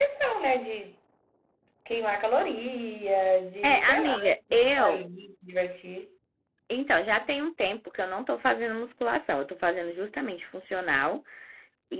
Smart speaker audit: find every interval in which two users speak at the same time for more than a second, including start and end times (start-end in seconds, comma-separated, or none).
3.6-5.0